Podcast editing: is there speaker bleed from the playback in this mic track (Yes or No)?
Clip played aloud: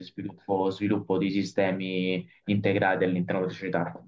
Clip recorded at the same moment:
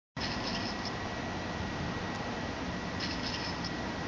No